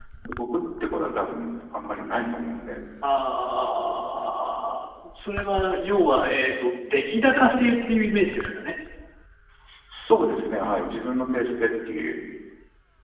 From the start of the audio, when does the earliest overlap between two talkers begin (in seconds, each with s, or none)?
none